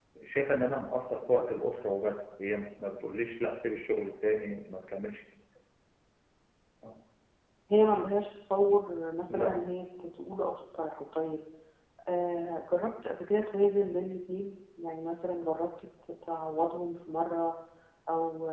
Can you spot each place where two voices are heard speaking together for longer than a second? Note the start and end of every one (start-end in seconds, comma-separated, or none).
none